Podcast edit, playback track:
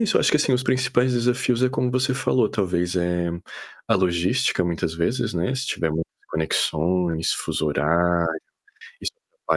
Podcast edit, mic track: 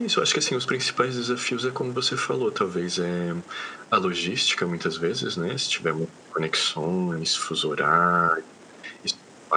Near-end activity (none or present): none